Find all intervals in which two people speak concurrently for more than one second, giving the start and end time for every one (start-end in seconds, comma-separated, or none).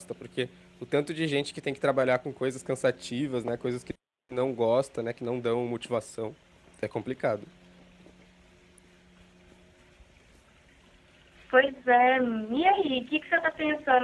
none